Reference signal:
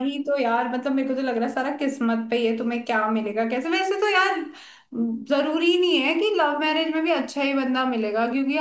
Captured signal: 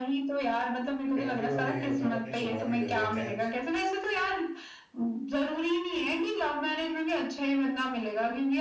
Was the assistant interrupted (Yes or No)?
Yes